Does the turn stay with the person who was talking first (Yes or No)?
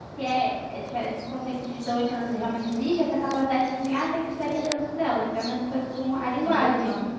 No